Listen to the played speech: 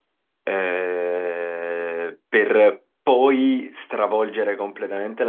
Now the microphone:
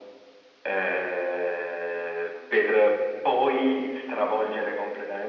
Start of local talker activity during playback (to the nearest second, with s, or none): none